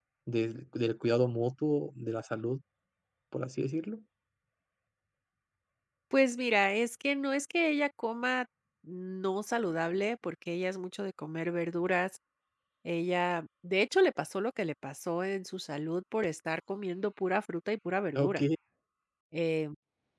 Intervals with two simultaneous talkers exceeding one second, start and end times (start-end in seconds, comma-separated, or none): none